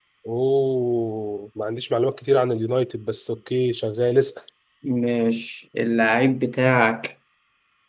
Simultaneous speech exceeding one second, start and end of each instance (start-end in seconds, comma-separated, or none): none